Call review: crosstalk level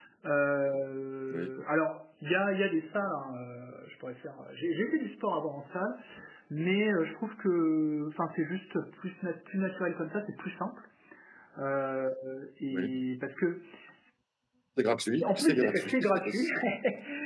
present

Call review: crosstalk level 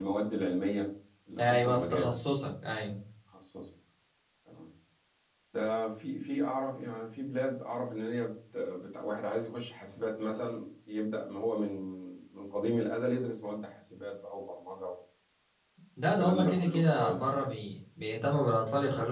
present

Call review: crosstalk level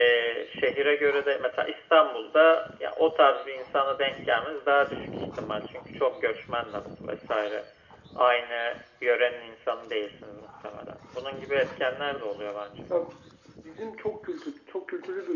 none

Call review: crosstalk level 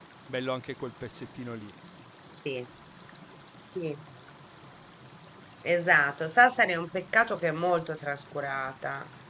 none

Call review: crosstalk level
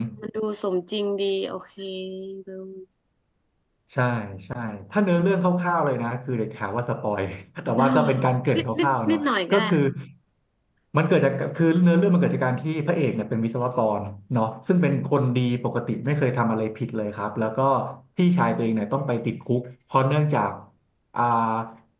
present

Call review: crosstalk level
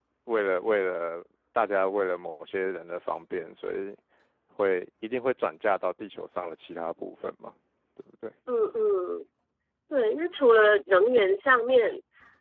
none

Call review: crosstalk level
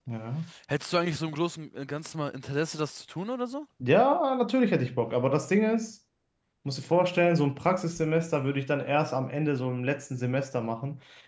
none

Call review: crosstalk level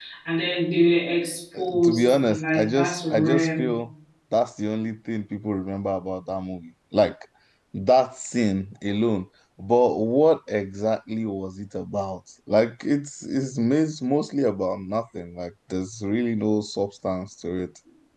present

